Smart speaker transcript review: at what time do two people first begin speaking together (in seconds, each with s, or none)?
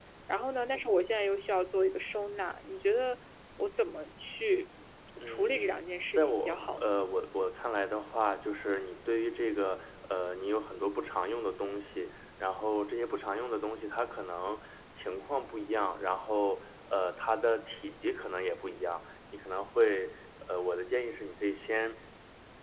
5.2 s